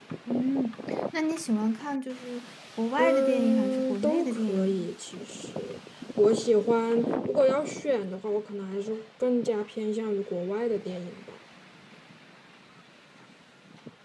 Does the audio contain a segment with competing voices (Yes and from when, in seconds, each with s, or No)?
Yes, from 3.0 s